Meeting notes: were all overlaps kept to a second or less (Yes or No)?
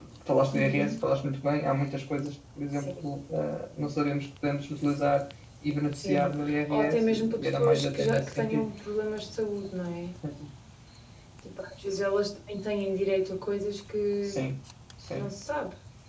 No